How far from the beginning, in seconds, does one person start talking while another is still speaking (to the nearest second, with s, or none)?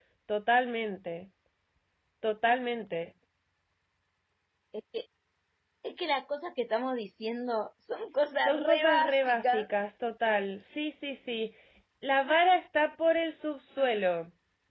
8 s